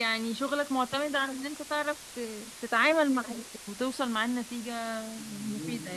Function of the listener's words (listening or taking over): taking over